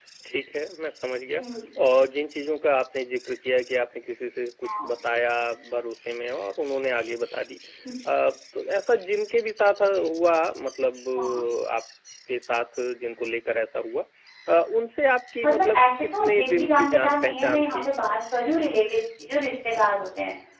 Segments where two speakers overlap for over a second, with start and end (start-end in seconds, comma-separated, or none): 15.4-17.9